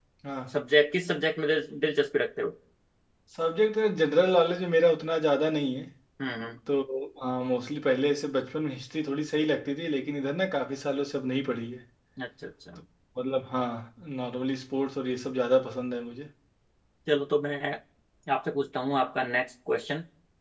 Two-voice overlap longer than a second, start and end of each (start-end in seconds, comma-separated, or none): none